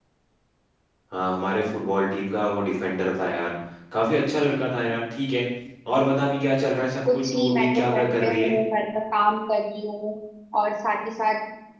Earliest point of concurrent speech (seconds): 7.0 s

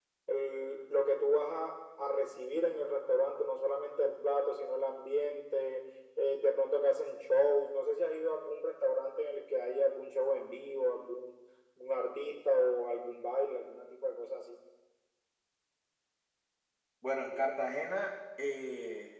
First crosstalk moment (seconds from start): none

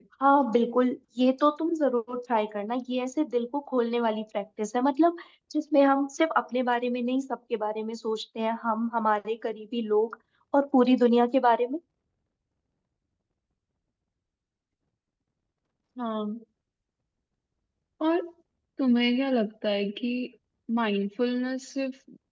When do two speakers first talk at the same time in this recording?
none

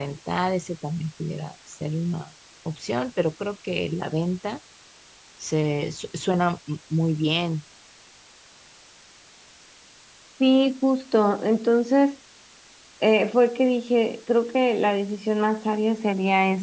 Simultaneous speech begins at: none

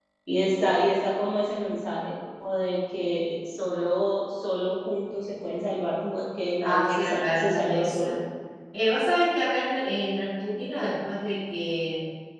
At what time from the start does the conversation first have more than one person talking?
6.6 s

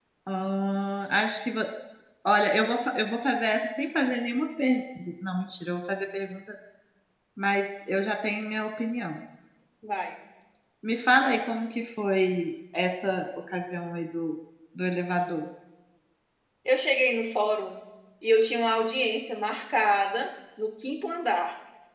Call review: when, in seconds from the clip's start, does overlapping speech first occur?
none

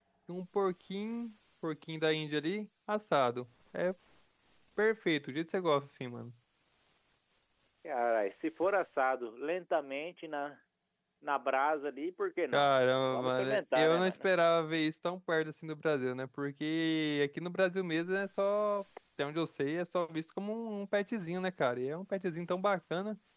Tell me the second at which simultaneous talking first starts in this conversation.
12.5 s

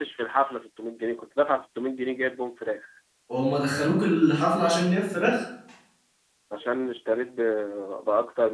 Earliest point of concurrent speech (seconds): none

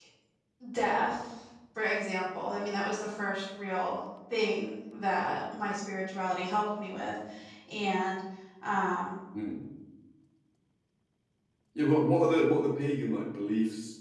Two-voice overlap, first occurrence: none

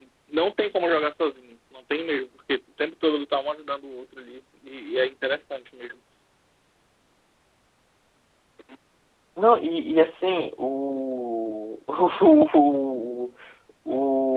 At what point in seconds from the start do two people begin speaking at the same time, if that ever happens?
none

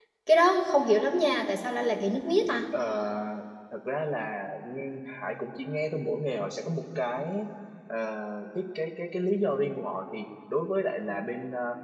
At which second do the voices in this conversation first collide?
none

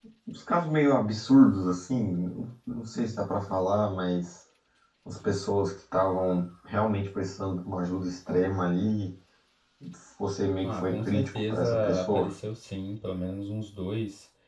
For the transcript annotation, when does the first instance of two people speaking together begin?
10.6 s

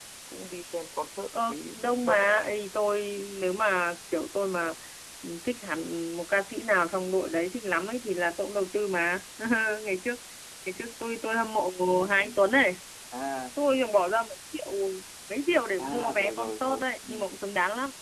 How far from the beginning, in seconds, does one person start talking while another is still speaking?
1.4 s

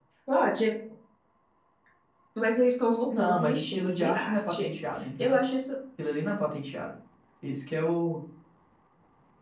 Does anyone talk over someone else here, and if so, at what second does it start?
3.1 s

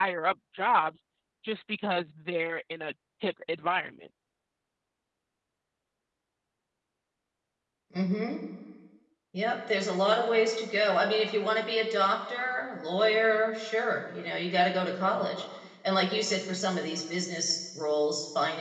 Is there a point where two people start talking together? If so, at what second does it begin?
none

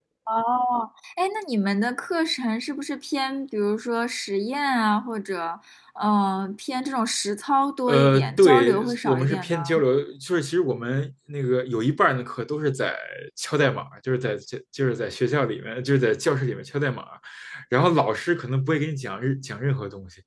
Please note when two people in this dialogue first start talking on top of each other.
7.9 s

